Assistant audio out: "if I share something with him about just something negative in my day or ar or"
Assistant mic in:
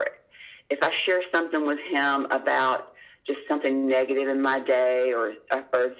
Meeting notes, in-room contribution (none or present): none